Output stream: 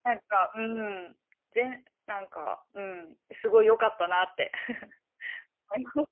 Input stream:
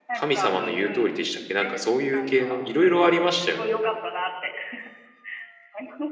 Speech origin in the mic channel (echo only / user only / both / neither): both